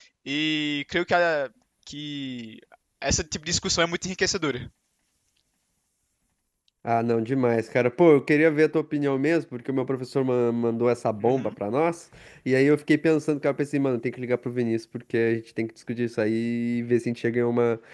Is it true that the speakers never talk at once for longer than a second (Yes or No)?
Yes